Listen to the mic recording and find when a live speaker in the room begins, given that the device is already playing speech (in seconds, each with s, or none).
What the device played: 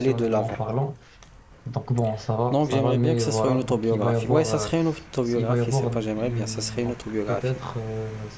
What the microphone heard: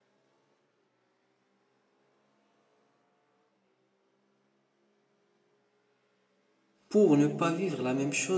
6.9 s